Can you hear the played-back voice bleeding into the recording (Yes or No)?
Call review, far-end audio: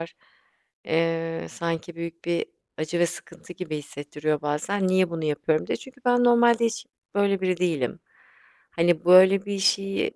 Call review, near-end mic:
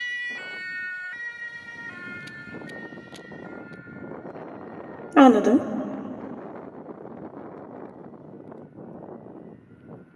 No